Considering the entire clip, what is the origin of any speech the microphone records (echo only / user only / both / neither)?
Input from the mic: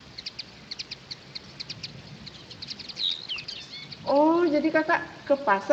user only